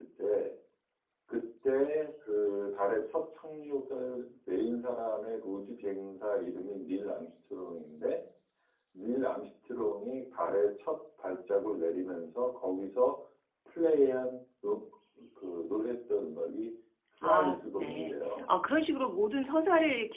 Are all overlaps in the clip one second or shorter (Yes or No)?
No